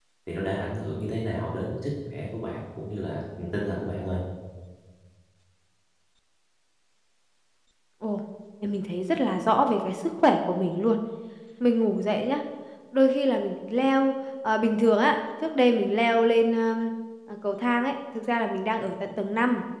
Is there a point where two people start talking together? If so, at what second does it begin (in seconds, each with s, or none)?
none